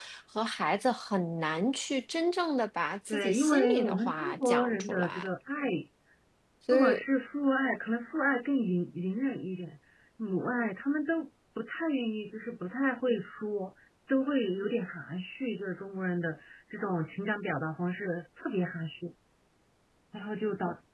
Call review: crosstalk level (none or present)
present